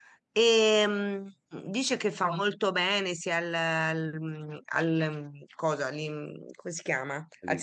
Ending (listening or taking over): listening